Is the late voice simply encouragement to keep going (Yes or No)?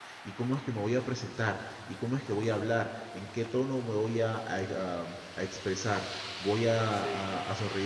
Yes